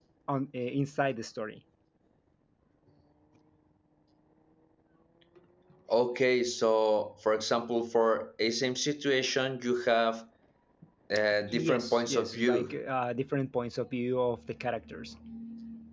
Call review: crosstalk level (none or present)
present